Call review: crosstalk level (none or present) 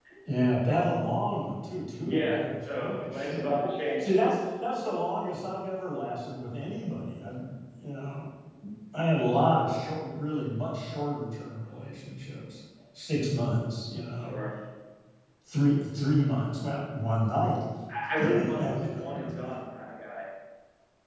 present